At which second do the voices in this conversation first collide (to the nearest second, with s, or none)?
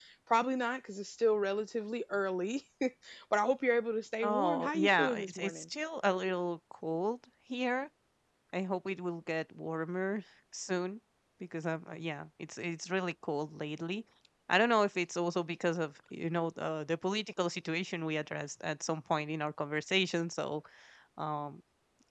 4 s